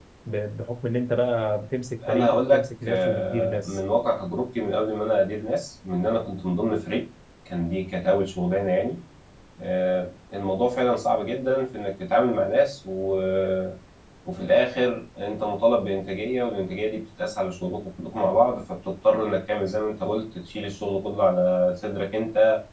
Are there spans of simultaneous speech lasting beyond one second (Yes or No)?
Yes